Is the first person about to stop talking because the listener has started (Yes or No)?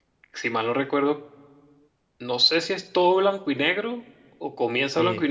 Yes